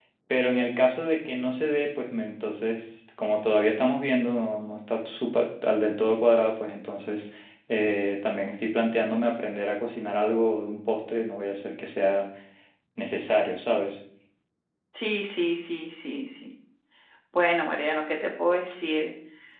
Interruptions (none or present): none